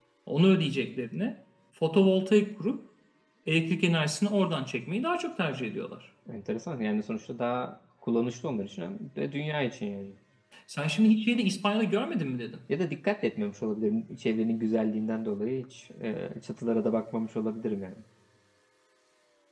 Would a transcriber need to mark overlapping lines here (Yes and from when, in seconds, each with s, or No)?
No